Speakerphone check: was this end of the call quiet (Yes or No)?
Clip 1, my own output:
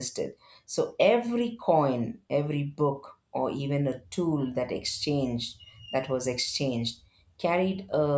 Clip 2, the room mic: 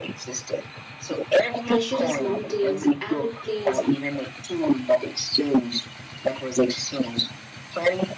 No